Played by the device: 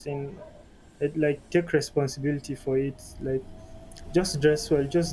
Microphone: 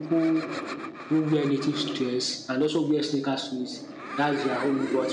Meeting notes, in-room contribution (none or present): present